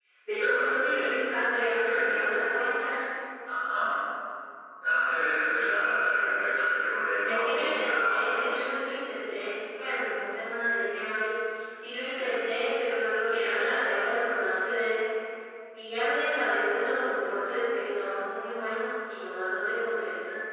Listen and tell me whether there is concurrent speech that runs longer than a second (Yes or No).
Yes